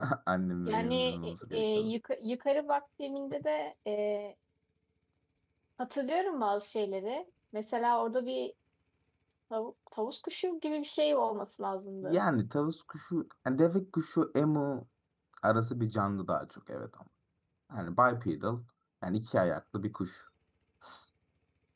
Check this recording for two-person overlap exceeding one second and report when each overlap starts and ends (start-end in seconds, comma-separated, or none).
0.7-1.9